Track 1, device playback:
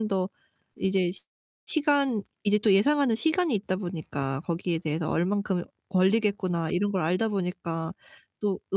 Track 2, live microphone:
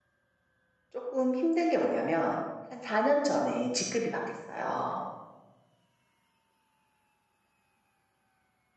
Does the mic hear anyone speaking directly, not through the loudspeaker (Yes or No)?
Yes